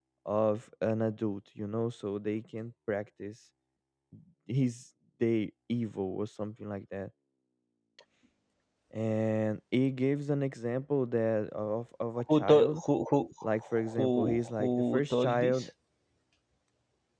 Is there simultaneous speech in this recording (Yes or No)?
Yes